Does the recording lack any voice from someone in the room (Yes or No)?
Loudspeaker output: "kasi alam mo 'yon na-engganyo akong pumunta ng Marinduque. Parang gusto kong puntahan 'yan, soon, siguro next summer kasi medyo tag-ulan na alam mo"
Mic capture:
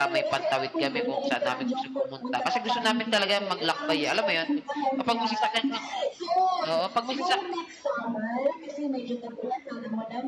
No